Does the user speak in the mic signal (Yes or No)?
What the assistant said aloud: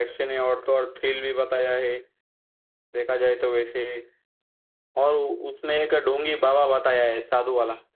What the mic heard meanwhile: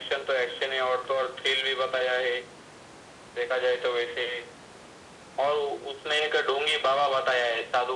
No